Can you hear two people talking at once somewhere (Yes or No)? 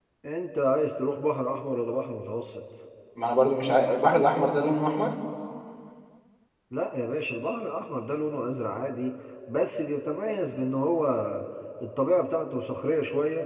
No